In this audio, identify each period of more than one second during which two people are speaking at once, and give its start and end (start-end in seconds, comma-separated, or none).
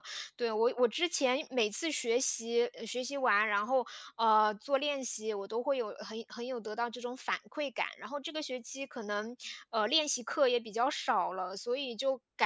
none